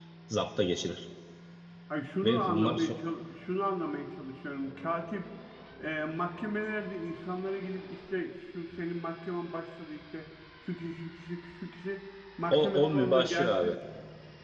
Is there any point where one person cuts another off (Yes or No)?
Yes